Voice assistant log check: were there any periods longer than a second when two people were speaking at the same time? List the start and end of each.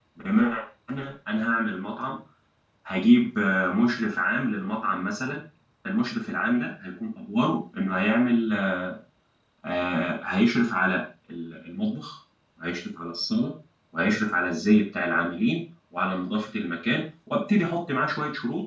none

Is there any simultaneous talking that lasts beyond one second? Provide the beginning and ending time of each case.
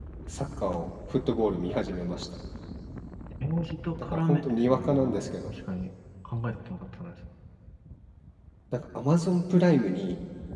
4.0-5.2

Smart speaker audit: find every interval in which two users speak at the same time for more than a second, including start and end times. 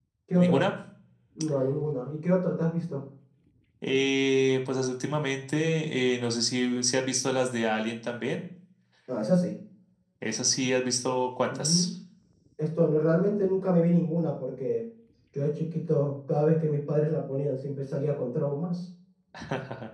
none

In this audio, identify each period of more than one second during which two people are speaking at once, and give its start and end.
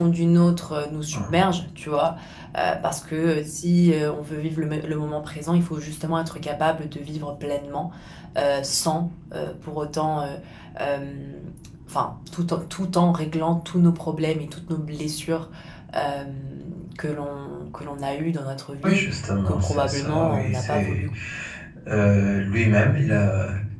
18.8-21.1

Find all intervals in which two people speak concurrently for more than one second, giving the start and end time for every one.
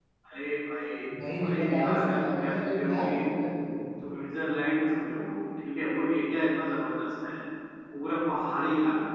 1.4-3.1

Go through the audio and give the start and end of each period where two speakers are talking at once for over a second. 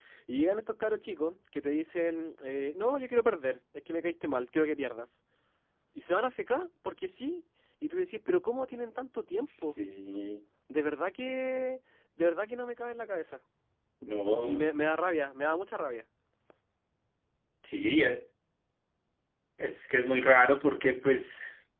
none

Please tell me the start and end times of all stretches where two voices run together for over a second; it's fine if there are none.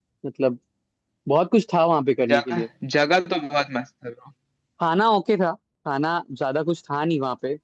none

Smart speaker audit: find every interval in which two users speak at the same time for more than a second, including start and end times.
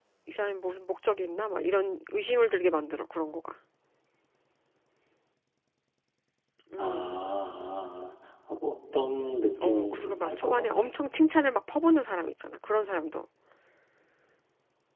9.6-10.9

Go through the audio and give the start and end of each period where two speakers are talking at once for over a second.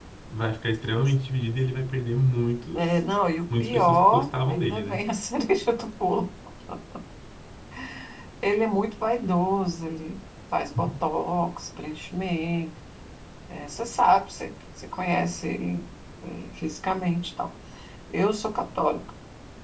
3.6-5.0

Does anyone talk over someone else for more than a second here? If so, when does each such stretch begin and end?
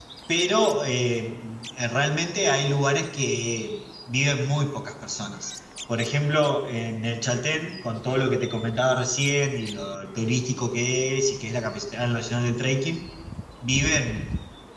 none

